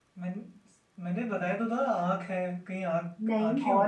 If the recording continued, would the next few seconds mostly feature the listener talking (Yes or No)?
Yes